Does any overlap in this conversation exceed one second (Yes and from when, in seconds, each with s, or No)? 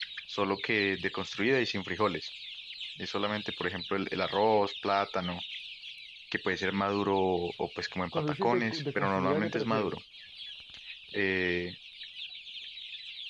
Yes, from 8.1 s